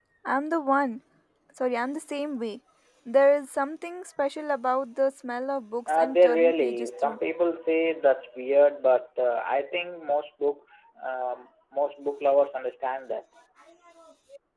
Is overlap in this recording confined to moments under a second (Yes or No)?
No